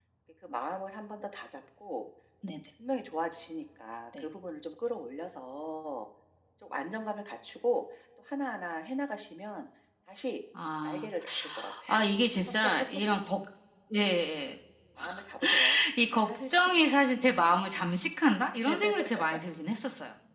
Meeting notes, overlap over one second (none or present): present